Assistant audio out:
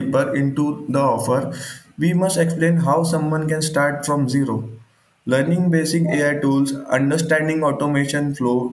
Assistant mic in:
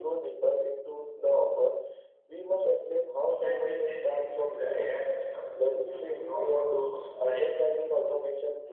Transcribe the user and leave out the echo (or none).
You can build these things with the AI system using no code tools like